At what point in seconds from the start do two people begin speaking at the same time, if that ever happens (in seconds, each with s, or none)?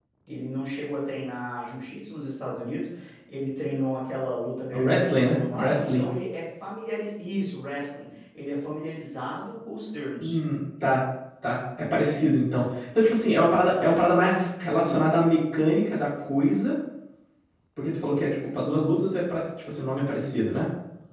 4.7 s